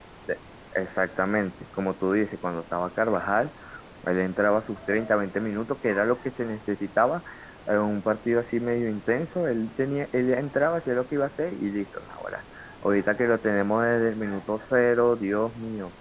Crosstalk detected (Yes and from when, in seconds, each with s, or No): No